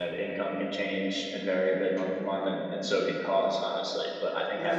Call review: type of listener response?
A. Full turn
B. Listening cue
B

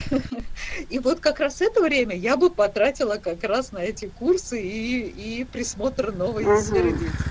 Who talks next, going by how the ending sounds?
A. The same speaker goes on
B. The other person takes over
B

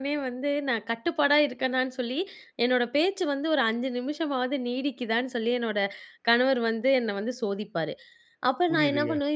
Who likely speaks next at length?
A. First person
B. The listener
A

